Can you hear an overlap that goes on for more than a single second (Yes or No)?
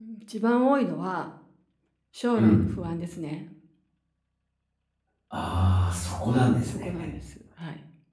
No